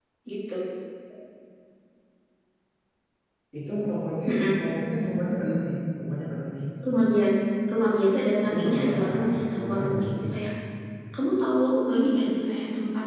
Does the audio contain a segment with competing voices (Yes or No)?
Yes